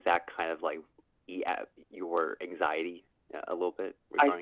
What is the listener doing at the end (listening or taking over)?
taking over